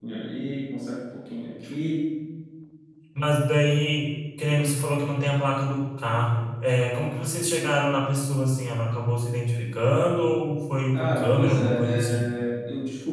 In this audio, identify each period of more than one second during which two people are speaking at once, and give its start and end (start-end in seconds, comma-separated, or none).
10.9-12.2